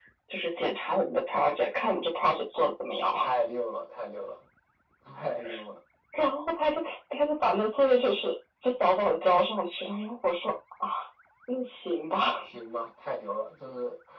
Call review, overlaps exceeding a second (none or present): none